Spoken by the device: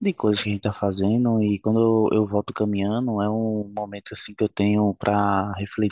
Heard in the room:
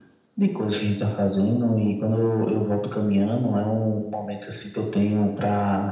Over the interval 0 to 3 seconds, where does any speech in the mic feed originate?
echo only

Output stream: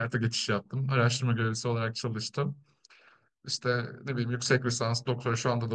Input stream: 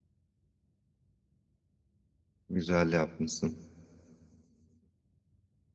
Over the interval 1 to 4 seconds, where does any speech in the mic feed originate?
user only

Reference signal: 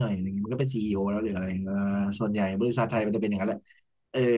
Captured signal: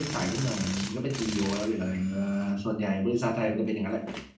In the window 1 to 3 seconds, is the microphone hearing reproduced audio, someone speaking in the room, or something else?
echo only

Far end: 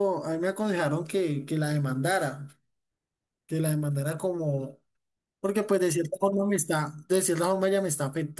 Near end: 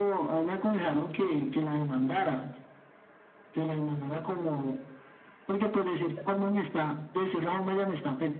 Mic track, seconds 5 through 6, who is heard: echo only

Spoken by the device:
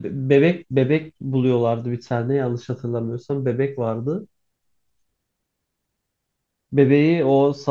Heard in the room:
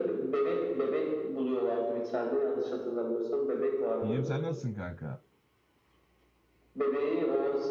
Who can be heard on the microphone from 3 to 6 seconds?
both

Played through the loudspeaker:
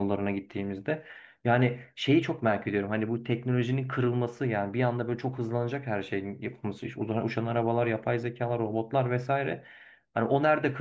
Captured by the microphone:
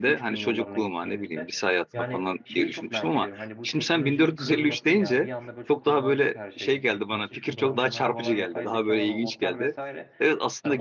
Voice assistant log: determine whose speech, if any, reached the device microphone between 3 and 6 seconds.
both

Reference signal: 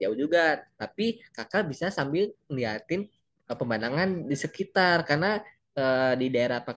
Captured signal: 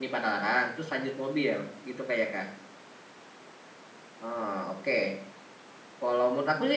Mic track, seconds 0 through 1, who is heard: user only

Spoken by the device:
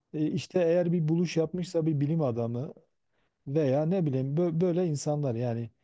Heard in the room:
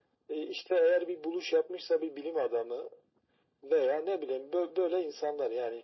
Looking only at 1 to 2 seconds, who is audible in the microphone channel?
echo only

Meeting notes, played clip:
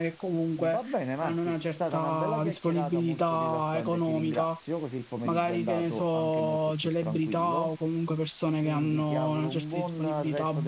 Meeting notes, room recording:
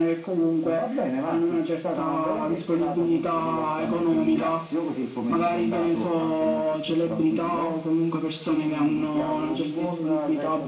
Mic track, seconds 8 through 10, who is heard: echo only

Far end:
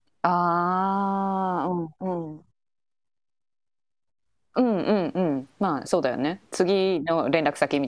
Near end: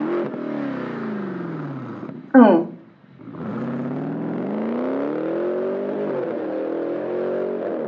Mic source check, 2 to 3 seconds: user only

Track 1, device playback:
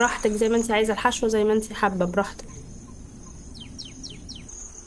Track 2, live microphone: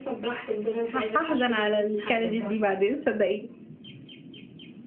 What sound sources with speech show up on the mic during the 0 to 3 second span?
both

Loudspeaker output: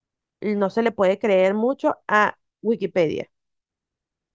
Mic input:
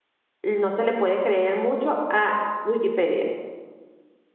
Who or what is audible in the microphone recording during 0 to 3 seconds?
echo only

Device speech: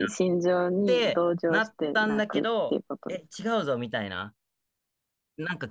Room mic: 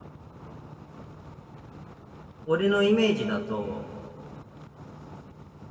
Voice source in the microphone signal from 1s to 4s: user only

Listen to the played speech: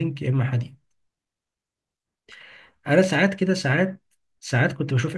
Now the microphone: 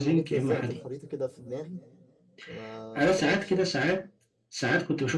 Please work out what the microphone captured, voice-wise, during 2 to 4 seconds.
both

